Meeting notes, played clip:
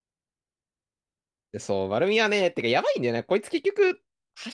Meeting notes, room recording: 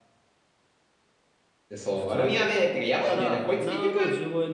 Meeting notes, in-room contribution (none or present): present